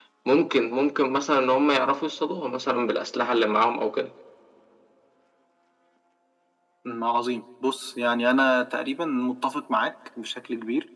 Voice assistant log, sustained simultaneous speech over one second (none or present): none